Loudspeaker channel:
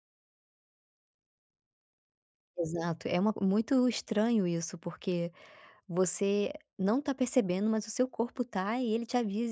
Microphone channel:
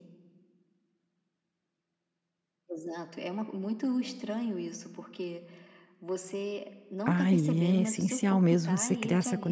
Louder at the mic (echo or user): user